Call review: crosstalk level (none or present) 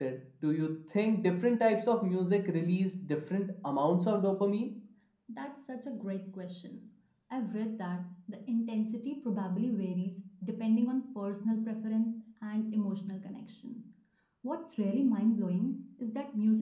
none